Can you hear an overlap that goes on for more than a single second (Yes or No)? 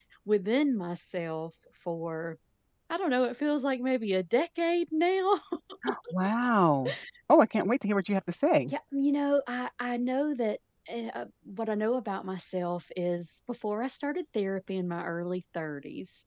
No